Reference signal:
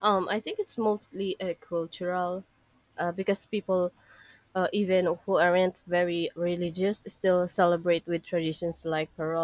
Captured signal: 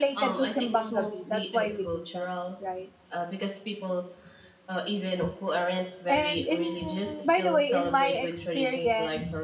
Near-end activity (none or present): present